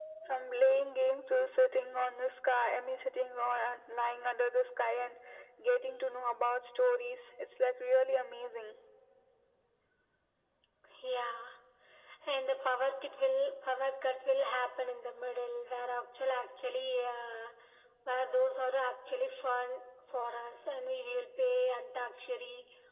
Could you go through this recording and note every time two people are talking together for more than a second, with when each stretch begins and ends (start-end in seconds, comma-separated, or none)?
none